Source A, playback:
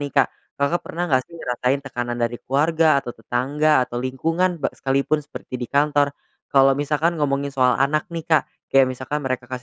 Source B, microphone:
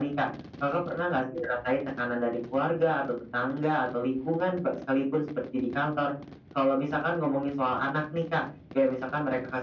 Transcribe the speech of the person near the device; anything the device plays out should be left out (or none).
none